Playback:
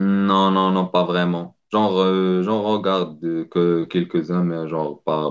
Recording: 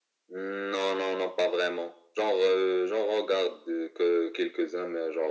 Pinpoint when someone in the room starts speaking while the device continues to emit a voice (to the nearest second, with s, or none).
none